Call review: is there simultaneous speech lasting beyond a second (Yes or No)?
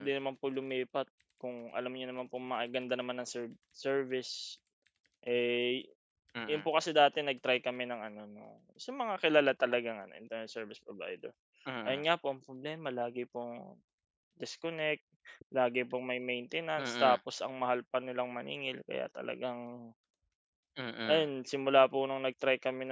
No